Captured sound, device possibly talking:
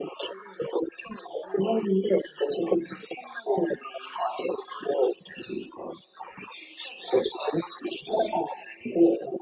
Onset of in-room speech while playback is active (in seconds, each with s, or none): none